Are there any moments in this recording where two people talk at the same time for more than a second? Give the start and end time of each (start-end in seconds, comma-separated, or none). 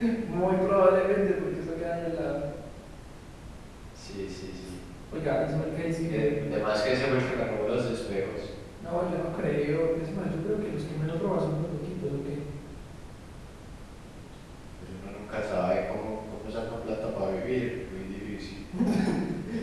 none